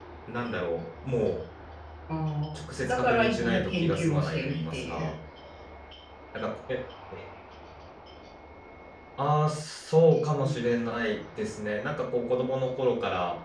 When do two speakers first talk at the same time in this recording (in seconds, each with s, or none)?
2.5 s